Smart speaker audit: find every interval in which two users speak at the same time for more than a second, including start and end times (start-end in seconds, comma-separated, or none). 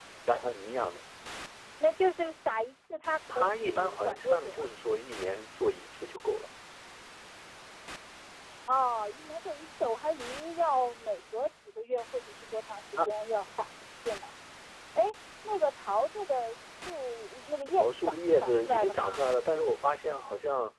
3.4-4.7, 17.8-19.2